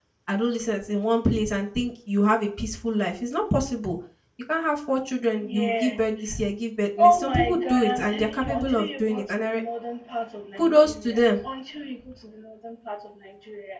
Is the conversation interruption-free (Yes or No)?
No